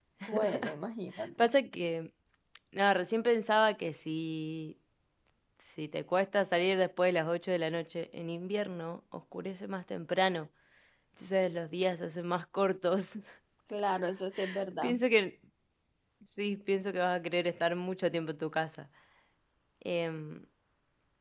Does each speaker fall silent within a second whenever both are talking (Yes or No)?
Yes